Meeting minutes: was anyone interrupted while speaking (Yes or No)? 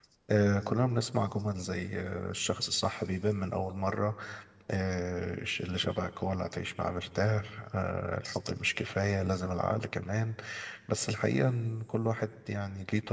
No